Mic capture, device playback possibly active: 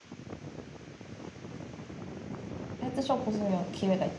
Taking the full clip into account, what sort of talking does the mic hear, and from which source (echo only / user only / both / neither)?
user only